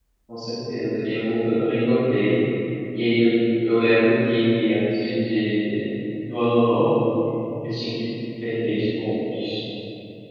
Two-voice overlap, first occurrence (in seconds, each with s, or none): none